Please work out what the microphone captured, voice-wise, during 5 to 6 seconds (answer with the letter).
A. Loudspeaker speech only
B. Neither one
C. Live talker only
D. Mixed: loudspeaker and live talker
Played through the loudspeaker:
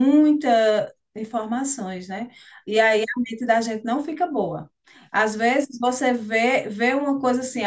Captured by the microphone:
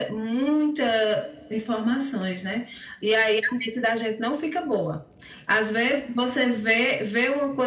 A